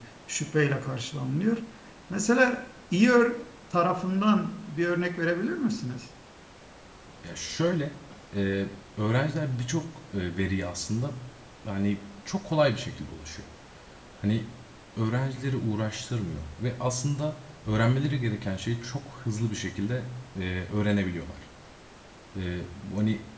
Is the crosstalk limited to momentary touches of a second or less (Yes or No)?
Yes